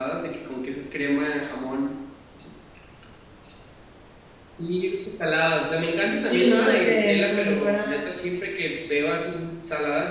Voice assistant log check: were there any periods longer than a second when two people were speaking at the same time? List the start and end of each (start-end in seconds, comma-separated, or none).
6.3-7.9